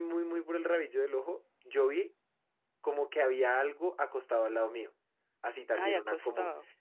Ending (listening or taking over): listening